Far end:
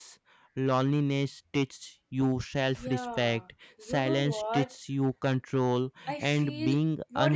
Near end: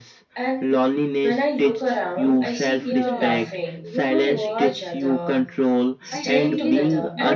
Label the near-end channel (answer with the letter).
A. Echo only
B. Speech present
B